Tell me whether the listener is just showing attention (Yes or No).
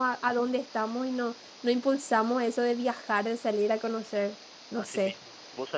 No